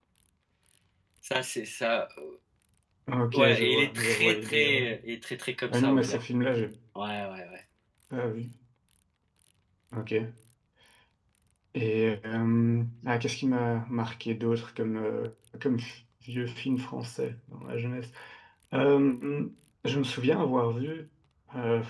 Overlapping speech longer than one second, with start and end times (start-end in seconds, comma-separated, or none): 3.3-4.8